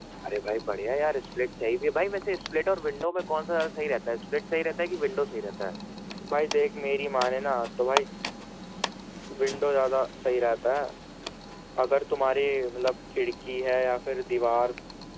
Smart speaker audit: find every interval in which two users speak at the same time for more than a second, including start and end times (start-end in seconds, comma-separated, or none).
none